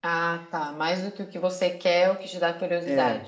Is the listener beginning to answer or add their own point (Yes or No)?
Yes